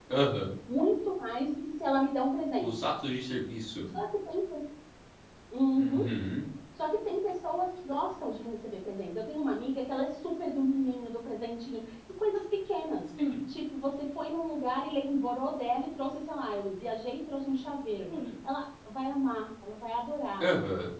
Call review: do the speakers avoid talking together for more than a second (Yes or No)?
Yes